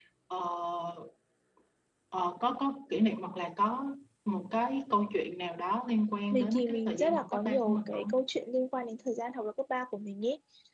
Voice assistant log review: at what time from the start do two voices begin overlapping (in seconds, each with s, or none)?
6.3 s